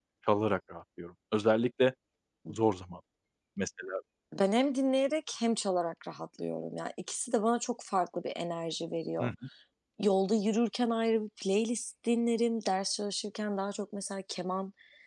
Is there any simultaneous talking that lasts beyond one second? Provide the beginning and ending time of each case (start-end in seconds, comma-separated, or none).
none